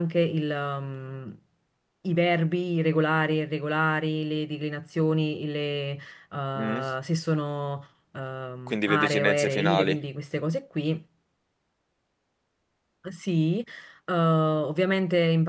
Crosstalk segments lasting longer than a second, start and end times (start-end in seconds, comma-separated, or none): 8.7-10.0